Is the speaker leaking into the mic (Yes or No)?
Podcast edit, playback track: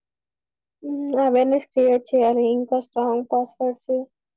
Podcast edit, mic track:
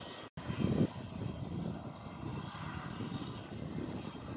No